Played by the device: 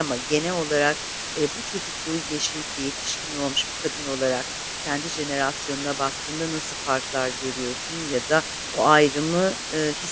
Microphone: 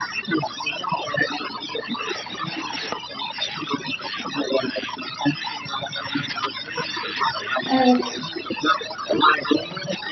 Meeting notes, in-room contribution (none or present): present